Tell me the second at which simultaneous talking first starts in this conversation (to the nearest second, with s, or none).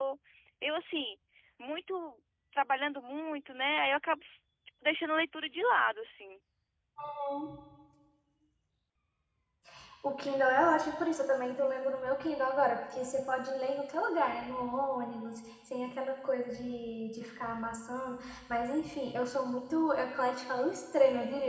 none